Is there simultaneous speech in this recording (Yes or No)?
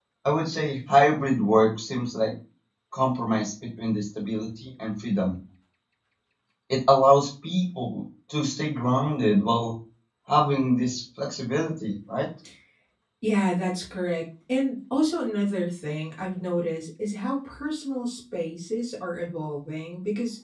No